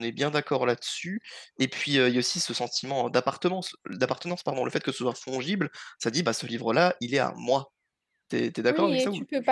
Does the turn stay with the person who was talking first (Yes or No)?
No